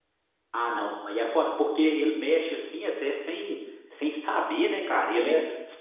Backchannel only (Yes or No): Yes